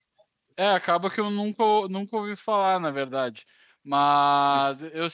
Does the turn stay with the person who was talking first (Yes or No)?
Yes